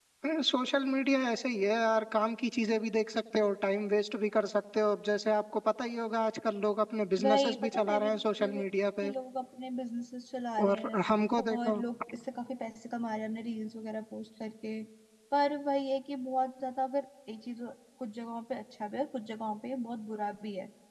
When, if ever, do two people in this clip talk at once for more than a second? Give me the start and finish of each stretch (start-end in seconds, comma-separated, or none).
7.2-8.6